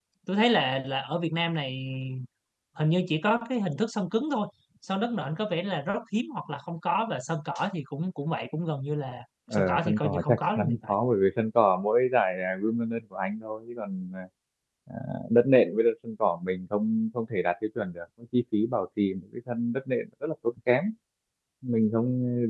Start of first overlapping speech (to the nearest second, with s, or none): 10 s